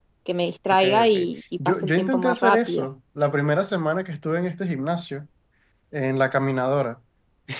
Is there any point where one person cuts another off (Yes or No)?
Yes